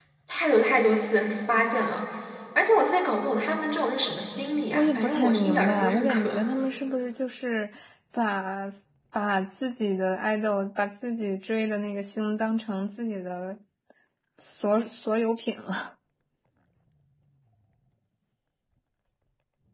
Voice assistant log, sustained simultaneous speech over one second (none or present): present